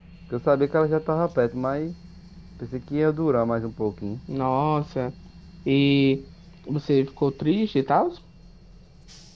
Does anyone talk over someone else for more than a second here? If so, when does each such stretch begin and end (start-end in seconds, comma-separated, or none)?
none